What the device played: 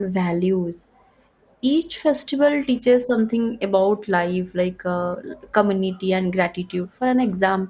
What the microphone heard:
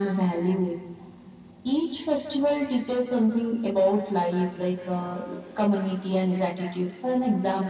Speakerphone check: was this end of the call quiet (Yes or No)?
Yes